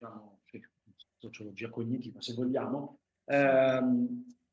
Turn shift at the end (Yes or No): No